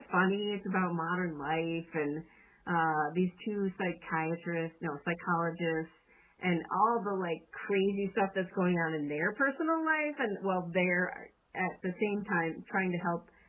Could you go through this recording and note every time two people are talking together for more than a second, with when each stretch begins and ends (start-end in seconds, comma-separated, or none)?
none